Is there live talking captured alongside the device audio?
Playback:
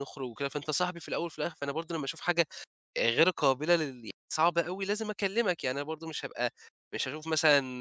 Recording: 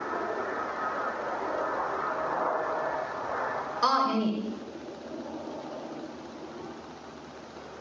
Yes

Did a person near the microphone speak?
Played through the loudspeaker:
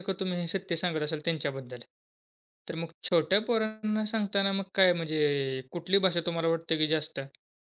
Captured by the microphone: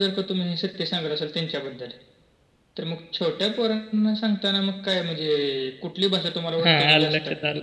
Yes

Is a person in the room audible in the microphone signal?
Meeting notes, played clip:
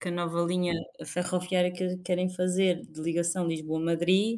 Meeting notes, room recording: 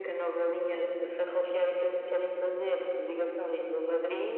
No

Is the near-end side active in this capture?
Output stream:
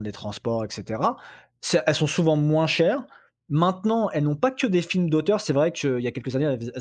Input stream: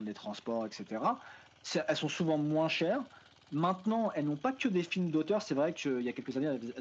No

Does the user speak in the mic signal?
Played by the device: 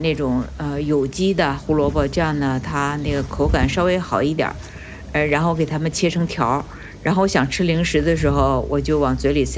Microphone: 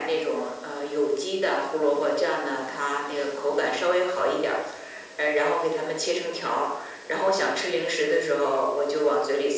No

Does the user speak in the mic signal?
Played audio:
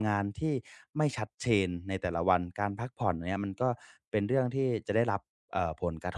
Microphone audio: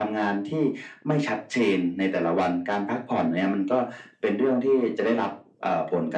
No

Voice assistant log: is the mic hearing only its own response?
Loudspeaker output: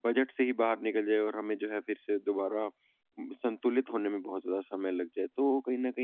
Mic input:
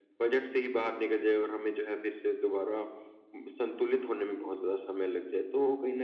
Yes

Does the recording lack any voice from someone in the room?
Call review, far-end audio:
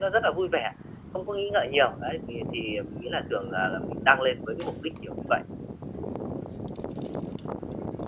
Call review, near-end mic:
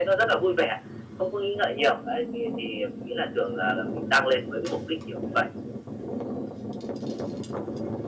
Yes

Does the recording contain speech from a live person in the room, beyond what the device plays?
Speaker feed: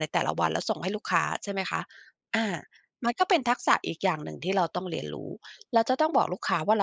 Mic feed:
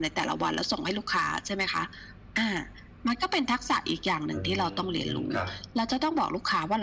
Yes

